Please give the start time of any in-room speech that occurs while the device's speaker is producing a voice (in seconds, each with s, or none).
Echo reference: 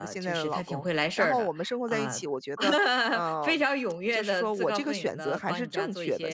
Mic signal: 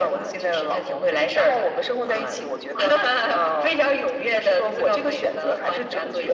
none